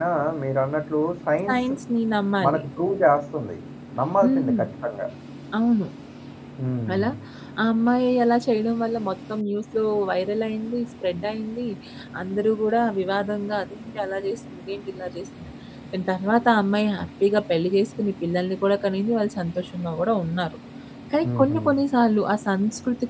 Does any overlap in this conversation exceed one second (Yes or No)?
No